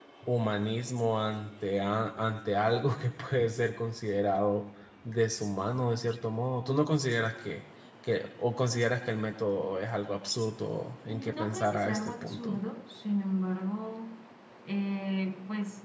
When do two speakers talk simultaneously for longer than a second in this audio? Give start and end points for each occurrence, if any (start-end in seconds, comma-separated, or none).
11.1-12.6